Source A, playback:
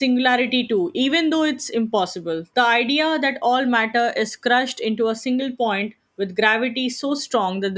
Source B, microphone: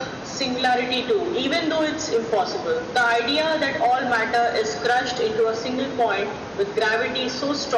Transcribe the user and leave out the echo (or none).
none